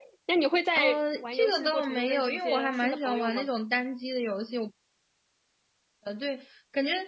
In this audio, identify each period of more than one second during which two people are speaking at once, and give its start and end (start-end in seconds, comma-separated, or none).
0.8-3.5